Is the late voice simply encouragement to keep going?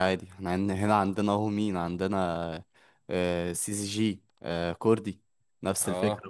No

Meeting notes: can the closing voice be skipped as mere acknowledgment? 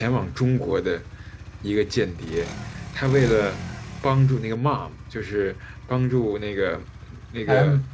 Yes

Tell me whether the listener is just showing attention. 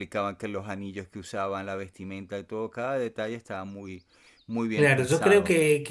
No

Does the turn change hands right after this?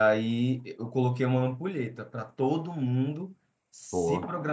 No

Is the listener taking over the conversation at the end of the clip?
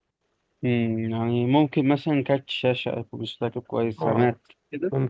Yes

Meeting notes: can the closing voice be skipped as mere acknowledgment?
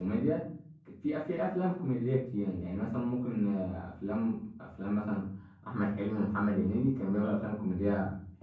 Yes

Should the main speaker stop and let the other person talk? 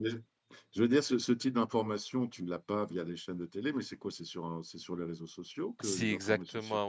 Yes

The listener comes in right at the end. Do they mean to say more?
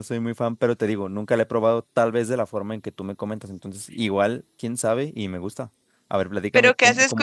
Yes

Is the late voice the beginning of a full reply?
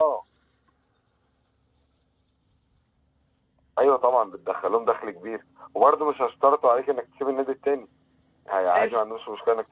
No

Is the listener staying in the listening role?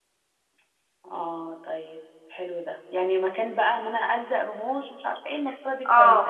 No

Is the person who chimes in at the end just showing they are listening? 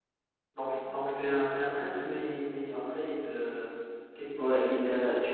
No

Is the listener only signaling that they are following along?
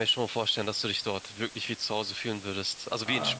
No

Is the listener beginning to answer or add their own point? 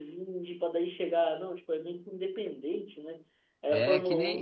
Yes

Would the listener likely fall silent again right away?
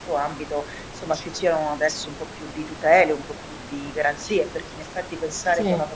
Yes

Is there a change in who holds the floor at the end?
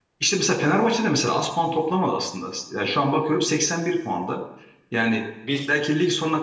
No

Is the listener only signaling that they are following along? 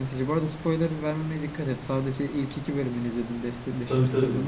No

